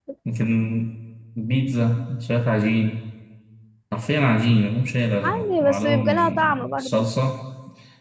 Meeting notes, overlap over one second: present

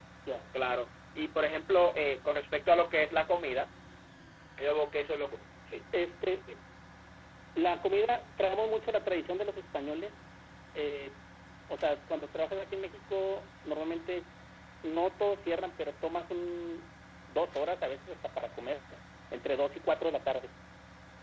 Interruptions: none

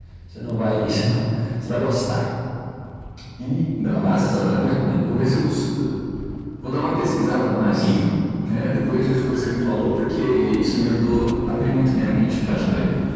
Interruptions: present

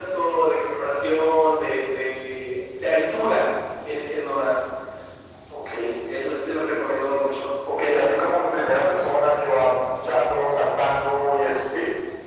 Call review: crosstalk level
none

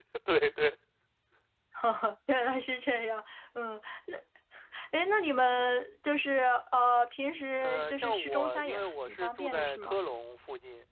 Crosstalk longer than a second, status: present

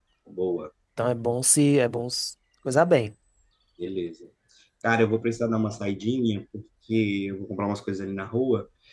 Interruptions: none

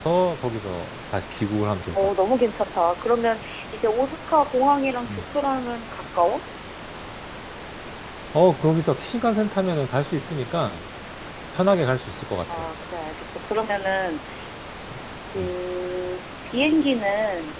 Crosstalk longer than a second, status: none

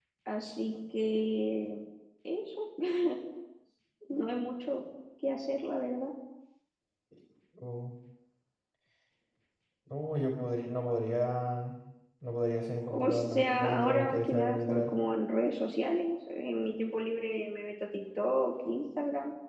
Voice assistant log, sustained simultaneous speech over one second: present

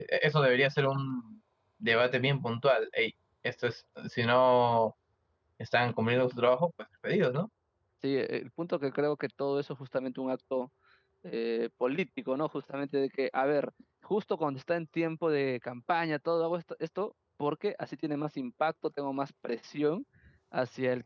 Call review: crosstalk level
none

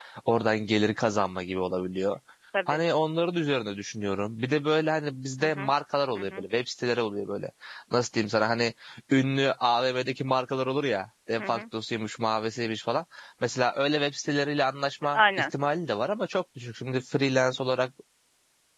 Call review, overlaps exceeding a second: none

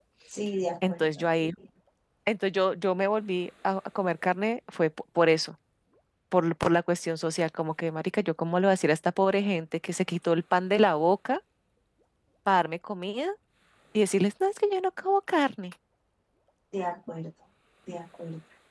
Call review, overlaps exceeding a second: none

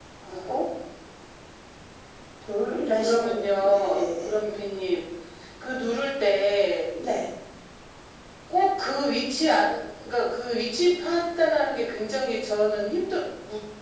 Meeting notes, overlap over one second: present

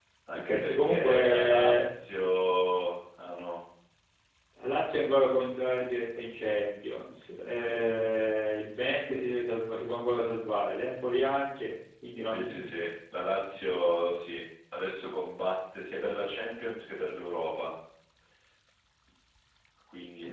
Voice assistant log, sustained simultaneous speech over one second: present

